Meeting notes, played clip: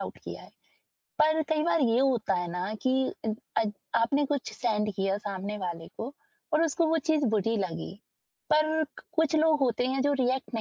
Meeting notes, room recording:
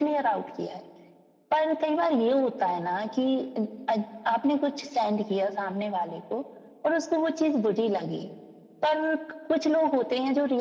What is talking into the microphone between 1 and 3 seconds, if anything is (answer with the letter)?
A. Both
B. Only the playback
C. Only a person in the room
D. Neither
B